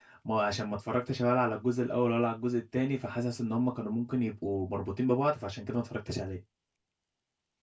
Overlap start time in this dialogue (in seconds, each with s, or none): none